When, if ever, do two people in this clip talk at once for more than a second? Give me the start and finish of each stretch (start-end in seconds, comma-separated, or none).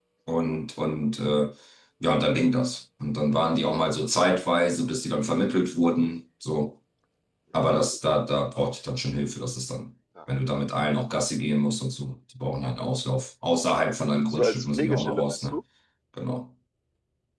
14.3-15.6